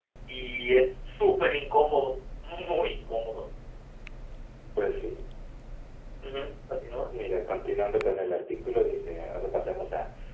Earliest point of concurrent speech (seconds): none

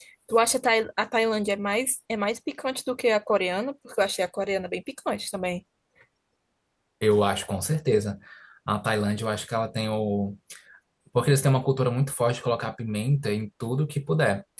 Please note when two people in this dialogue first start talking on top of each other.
none

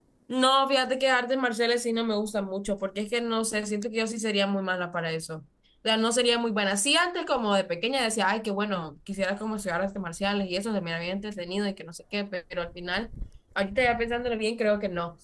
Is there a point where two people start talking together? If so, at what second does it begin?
none

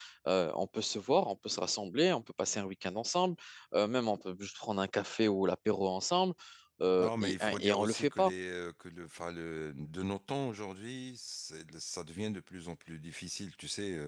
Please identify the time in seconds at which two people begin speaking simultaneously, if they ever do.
7 s

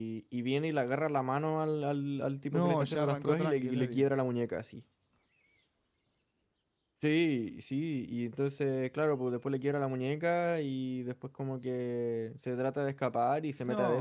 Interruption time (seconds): 3 s

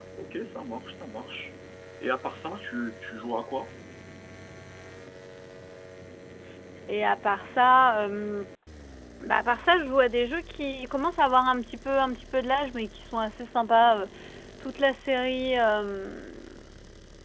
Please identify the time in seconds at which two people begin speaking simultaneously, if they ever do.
none

